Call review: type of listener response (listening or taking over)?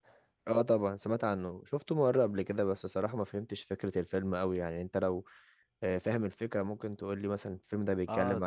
taking over